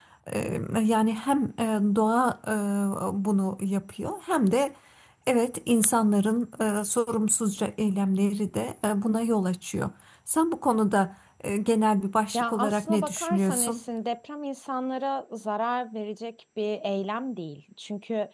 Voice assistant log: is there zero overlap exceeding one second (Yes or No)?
No